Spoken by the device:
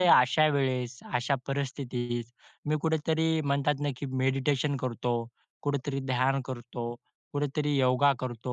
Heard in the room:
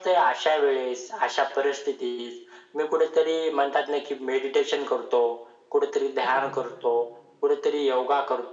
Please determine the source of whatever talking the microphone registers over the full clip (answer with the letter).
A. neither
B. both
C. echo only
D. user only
B